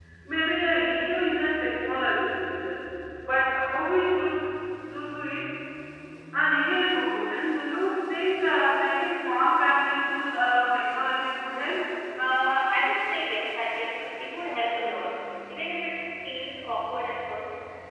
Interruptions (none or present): none